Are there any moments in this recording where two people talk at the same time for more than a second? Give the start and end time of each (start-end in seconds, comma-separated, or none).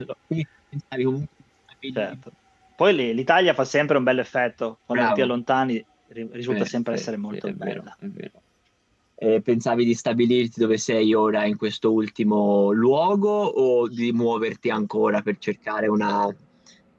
6.5-7.8